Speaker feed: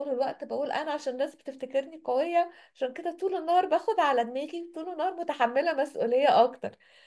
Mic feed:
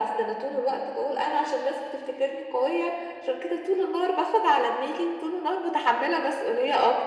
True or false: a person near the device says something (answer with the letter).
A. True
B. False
B